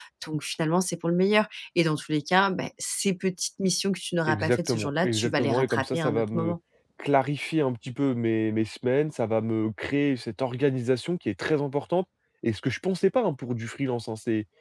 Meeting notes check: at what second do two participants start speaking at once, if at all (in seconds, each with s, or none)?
4.3 s